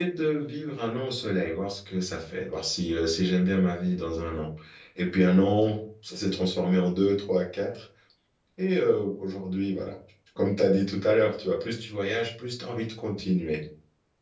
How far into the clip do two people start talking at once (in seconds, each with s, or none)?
none